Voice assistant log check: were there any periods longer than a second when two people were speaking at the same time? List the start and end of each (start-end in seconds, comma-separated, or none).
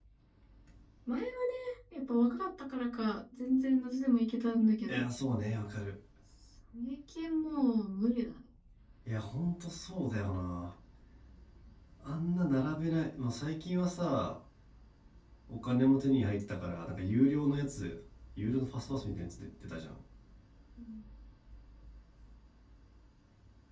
none